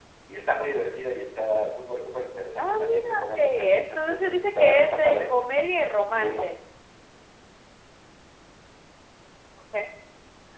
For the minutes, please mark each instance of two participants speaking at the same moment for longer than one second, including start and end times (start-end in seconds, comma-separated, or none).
2.6-5.2